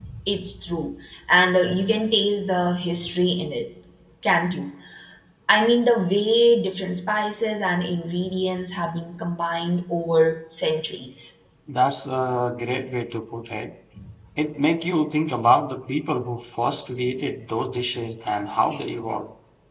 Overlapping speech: No

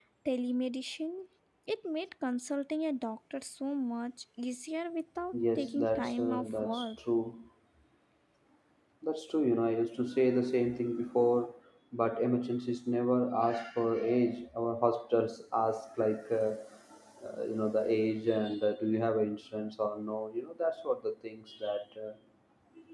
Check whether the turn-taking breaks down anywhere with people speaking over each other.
Yes, from 5.3 s

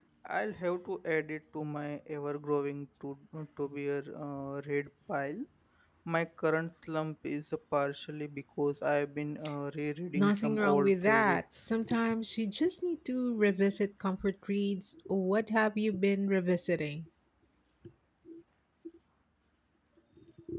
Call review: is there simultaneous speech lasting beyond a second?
Yes, from 10.2 s

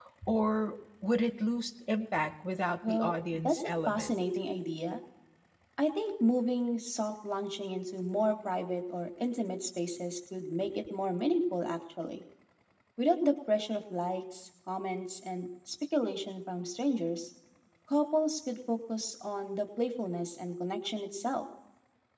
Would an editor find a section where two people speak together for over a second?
Yes, from 2.8 s

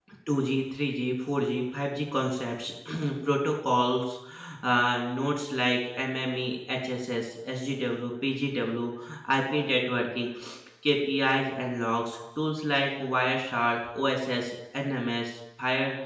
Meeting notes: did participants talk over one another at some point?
No

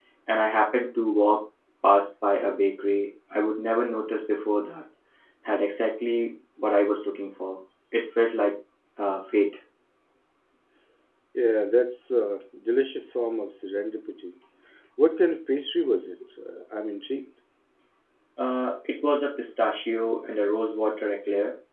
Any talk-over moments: No

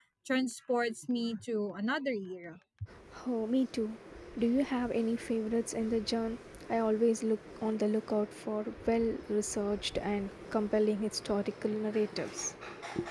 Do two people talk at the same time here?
No

